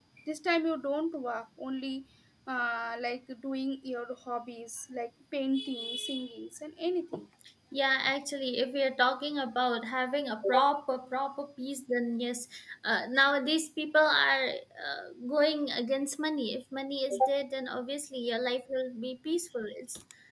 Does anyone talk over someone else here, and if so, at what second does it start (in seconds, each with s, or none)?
none